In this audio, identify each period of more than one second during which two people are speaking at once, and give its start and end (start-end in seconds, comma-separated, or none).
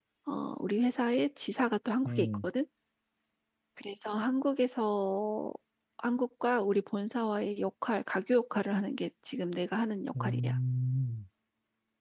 none